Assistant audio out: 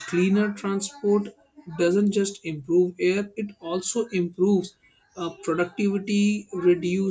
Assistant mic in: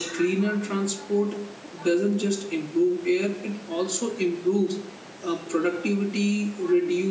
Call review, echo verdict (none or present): present